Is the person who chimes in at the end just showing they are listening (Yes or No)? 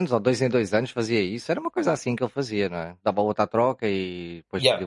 No